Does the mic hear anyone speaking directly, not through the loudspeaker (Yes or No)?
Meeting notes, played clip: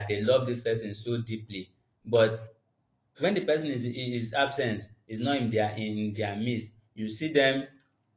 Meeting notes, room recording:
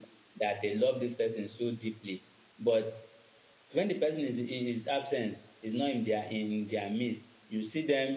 No